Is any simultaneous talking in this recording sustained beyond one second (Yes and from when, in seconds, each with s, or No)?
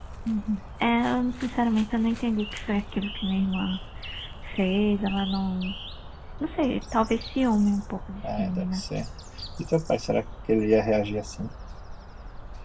No